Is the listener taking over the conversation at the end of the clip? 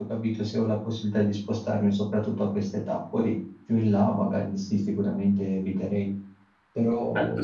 Yes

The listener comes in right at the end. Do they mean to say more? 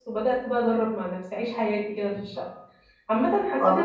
No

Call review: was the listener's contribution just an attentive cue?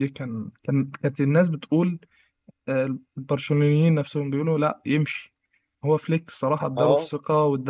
Yes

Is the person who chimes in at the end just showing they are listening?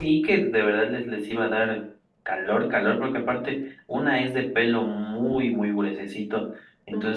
Yes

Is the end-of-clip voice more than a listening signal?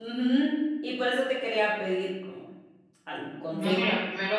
Yes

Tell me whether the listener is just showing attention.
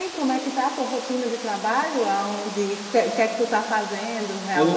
No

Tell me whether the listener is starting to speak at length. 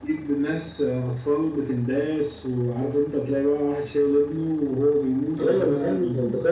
Yes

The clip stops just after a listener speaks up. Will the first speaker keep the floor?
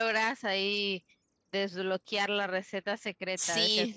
No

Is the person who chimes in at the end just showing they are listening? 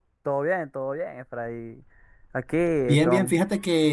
No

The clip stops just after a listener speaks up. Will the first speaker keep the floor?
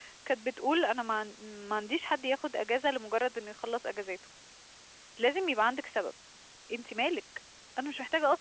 No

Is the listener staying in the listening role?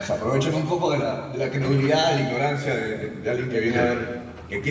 Yes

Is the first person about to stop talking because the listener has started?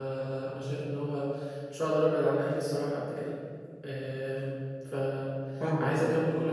No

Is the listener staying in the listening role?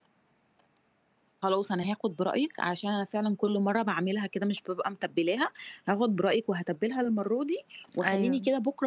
Yes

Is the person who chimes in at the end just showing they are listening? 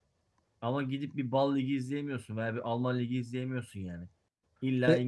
Yes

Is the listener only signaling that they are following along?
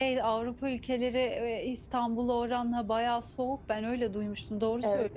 No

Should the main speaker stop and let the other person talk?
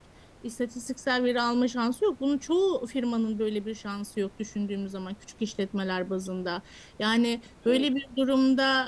No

